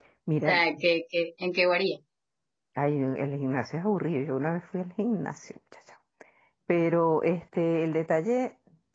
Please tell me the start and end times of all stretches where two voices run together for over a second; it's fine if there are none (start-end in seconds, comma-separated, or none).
none